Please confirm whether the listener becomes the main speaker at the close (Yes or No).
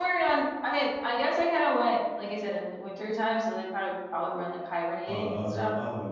Yes